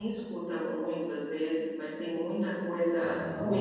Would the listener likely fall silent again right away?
No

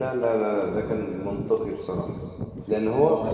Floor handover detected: No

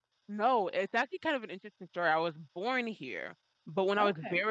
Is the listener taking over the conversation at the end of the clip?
No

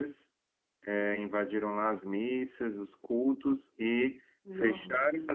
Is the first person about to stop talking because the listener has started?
No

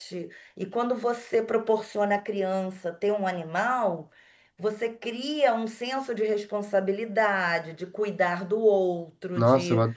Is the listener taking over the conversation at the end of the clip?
Yes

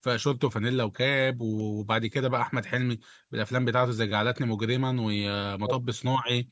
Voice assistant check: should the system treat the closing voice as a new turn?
No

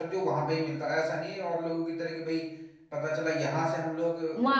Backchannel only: No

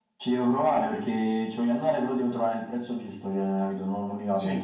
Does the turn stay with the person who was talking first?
No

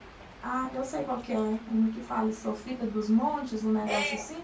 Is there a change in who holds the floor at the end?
Yes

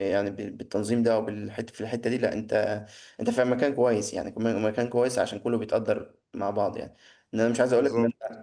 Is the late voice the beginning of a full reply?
No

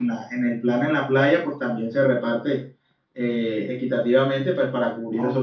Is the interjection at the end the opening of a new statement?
Yes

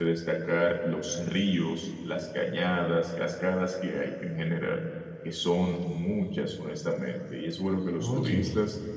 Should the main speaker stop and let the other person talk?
No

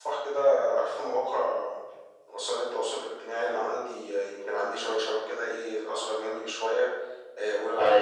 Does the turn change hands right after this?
No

